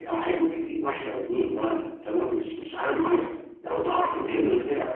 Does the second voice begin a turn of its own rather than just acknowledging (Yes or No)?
No